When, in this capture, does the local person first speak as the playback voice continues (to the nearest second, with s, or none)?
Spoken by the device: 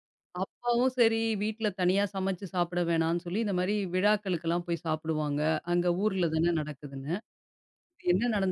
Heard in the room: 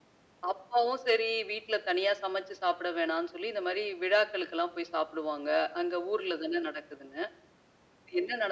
none